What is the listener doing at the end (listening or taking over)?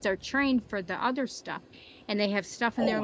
listening